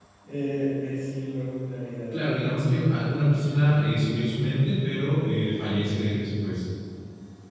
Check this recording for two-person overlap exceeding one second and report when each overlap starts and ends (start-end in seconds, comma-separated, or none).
none